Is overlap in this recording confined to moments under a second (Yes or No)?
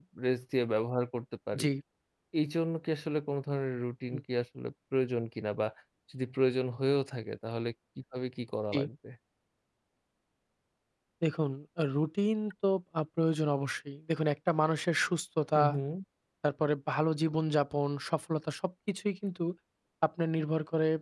Yes